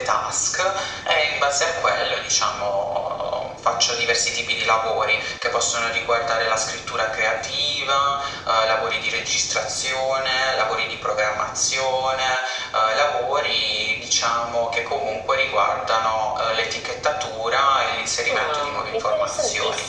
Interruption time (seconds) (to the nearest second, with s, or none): 18 s